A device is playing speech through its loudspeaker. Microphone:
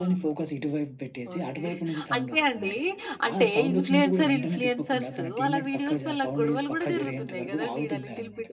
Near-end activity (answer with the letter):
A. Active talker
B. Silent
A